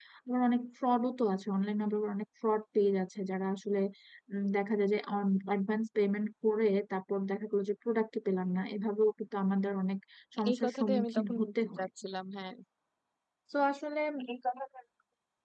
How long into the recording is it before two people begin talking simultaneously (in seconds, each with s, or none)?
10.5 s